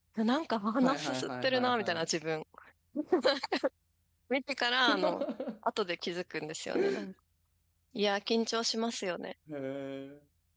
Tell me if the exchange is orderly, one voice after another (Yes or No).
No